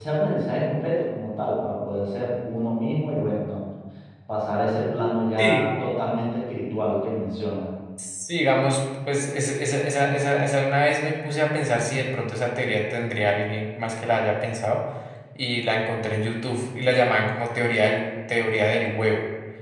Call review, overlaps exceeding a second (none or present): none